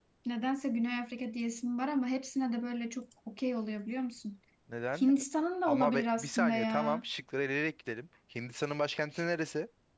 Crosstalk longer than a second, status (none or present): present